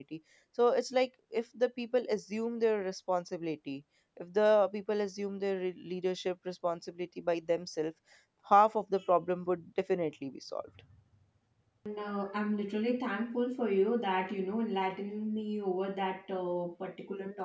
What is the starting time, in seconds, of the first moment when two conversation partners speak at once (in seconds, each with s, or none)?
none